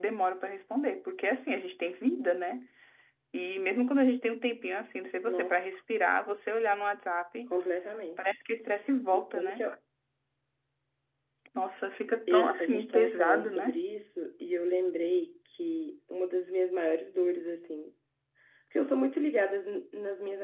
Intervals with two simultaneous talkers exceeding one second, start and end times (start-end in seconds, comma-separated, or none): 12.3-13.8